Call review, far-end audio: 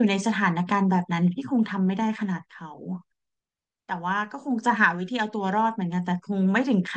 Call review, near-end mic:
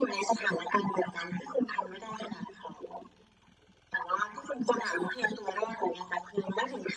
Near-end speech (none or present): none